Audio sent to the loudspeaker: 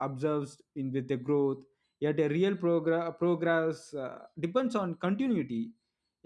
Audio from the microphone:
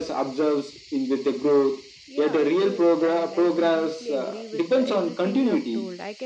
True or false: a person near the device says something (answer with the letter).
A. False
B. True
B